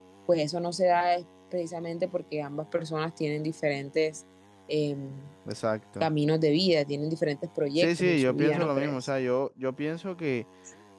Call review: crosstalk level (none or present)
present